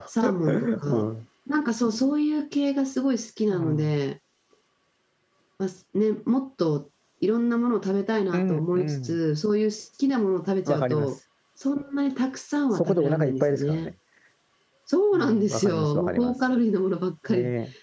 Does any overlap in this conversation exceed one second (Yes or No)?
Yes